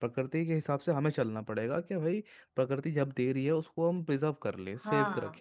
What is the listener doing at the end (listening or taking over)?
listening